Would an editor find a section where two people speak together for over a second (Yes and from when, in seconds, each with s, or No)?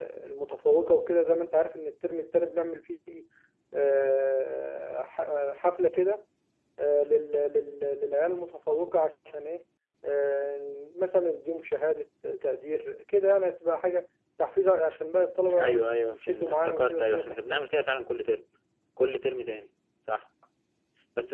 Yes, from 15.5 s